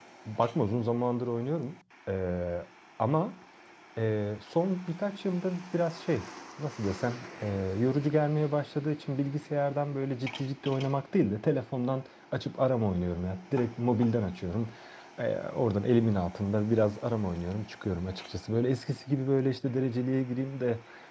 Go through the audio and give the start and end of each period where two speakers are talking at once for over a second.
none

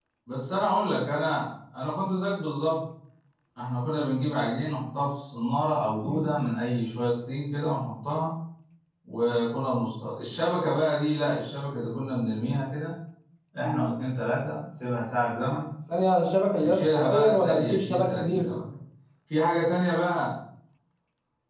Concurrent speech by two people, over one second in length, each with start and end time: 16.6-18.5

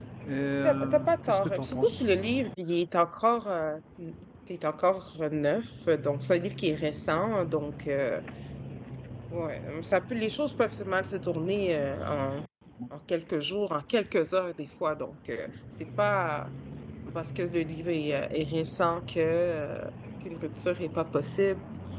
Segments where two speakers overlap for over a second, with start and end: 0.6-2.0

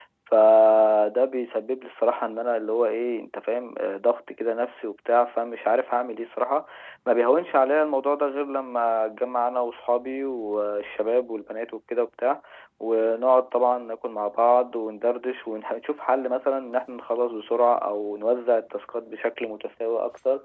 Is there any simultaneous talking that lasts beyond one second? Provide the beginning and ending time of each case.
none

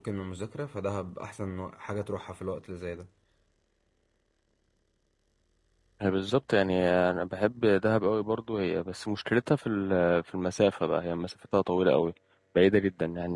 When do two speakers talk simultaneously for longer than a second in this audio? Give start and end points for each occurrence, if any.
none

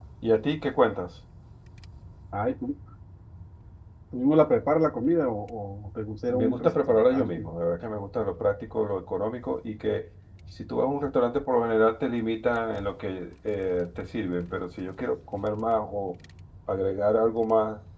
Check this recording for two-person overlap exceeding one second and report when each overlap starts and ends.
6.3-7.5

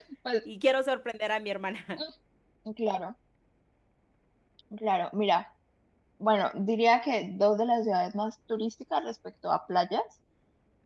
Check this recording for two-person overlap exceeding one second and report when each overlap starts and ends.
none

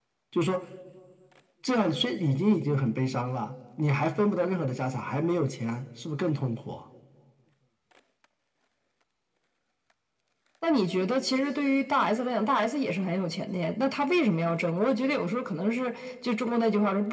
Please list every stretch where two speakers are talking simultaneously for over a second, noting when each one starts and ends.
none

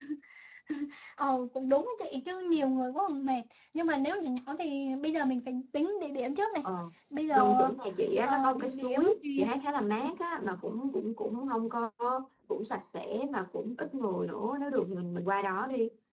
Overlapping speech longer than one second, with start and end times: 8.2-9.5

